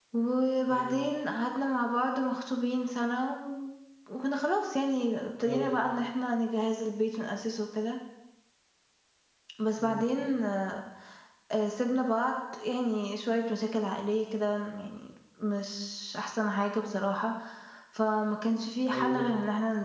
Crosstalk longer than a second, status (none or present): none